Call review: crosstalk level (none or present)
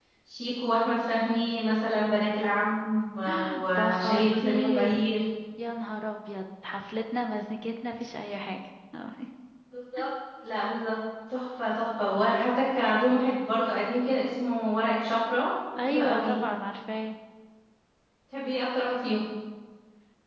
present